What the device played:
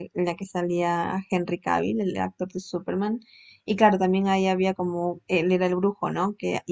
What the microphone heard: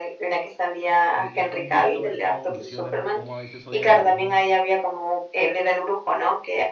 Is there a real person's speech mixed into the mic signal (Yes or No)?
Yes